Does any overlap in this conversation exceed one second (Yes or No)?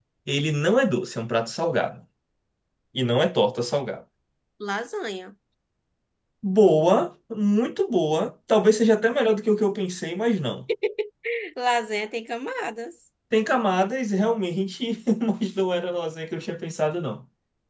No